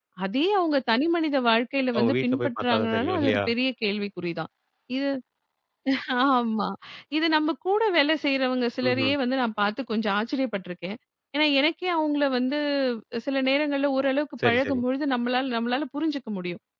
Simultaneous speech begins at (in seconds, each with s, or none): 2.0 s